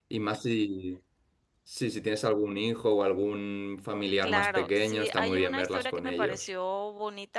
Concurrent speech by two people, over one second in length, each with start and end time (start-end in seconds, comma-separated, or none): 4.2-6.5